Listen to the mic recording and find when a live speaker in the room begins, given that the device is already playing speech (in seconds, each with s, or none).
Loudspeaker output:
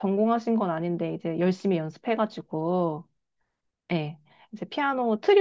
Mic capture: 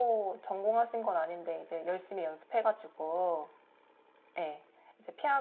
none